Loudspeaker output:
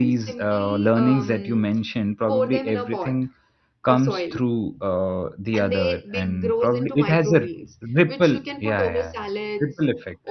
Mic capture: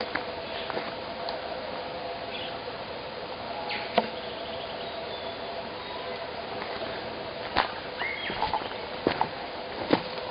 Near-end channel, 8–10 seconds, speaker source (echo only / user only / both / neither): neither